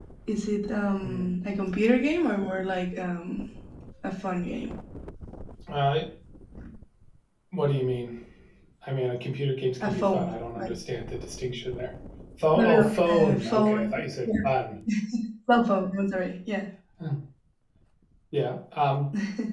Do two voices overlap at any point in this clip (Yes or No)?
Yes